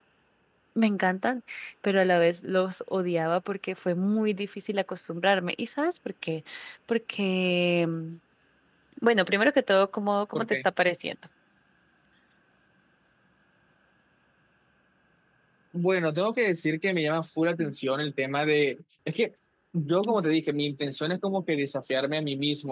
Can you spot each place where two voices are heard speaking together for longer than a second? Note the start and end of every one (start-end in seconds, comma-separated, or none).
none